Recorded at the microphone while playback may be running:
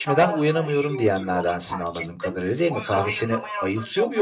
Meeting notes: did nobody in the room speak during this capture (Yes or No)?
No